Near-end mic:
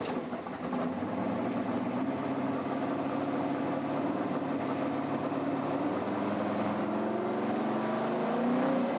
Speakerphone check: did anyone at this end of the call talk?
No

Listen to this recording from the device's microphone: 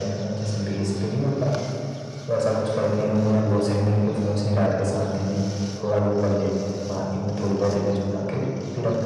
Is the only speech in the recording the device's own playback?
Yes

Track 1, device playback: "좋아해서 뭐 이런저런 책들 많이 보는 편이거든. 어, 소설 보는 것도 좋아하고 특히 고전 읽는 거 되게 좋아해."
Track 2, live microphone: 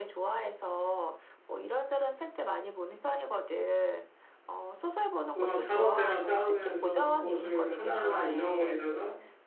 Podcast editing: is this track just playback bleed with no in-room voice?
No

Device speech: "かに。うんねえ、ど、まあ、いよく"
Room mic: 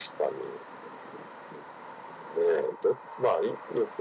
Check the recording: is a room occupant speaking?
No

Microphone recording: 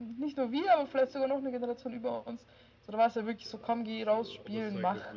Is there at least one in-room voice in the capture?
Yes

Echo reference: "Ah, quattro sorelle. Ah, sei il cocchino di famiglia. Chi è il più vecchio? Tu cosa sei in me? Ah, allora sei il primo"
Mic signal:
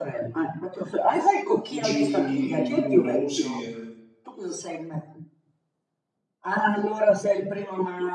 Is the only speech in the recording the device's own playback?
No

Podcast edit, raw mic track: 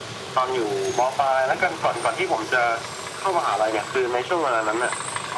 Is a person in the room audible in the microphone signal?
No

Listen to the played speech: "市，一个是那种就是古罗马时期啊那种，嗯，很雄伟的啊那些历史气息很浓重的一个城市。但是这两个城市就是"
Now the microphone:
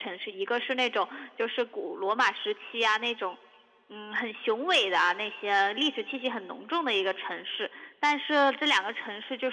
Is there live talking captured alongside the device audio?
No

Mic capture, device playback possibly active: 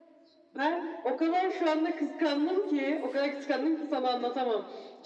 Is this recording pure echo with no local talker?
Yes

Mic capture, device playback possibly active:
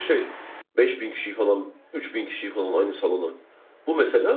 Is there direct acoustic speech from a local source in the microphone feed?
Yes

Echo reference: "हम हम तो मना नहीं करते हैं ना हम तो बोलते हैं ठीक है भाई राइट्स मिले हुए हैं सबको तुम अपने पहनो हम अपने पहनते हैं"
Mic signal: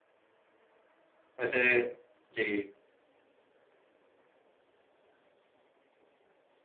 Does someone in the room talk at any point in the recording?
Yes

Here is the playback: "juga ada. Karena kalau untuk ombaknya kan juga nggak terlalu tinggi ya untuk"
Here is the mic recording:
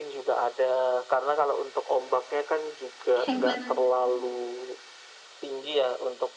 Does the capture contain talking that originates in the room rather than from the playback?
Yes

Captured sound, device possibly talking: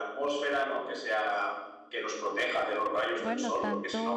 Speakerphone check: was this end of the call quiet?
No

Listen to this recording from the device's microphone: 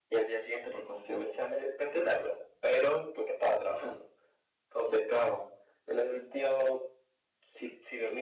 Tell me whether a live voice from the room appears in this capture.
No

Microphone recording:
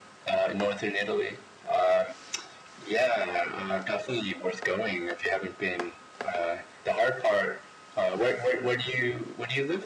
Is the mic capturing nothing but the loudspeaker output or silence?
Yes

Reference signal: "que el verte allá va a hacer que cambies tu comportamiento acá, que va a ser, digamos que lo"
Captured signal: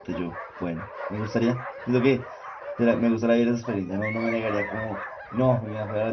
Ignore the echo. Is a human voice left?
Yes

